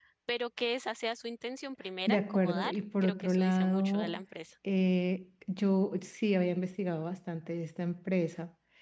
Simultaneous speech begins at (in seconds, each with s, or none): 2.1 s